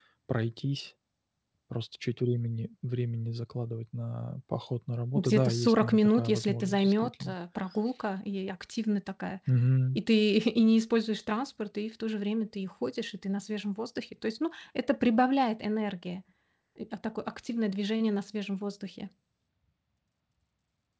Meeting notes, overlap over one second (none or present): present